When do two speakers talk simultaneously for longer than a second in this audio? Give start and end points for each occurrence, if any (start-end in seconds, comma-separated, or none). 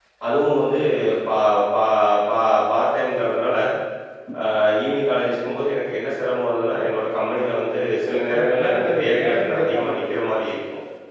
8.1-9.9